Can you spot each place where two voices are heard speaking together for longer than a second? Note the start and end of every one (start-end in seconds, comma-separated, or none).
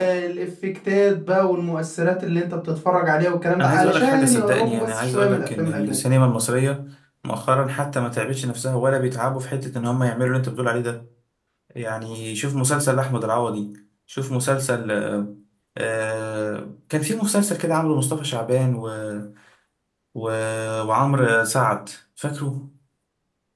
3.6-6.0